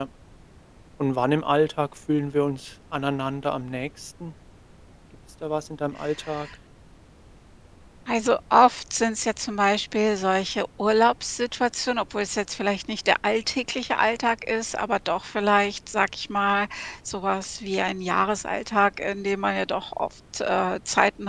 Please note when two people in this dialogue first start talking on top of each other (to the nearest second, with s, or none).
none